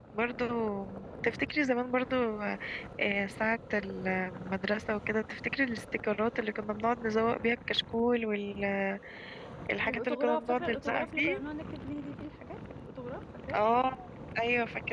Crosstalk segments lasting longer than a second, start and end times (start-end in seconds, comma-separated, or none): 9.8-11.4